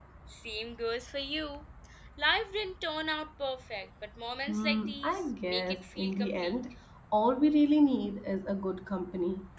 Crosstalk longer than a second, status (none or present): present